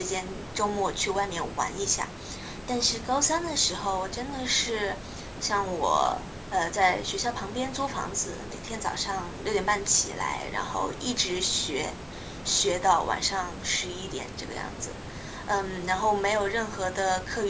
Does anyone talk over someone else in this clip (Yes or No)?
No